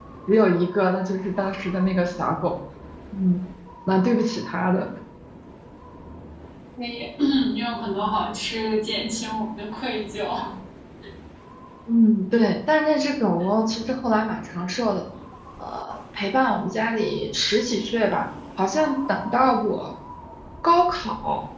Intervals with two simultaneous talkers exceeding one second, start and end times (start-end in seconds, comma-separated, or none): none